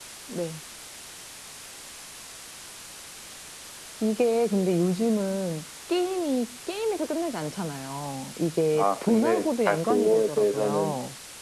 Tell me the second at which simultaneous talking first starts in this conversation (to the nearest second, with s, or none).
9 s